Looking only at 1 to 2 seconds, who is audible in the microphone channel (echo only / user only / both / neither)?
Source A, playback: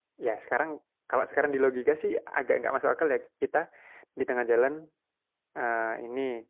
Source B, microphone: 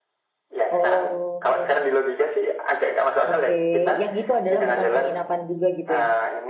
both